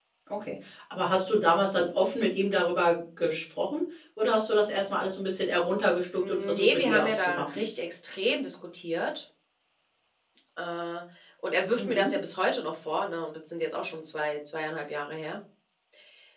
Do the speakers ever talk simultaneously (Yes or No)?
Yes